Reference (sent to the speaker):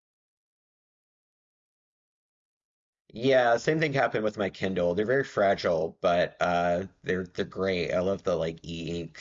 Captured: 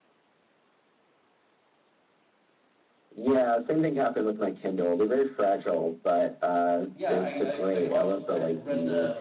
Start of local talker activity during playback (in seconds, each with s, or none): 6.9 s